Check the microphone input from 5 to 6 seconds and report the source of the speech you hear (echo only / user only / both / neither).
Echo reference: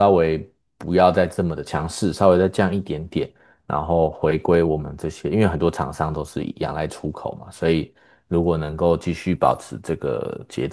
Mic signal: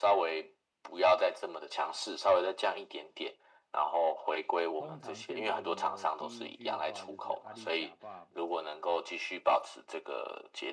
both